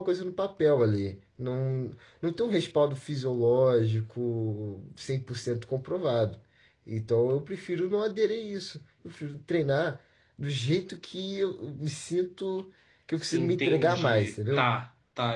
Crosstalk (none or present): present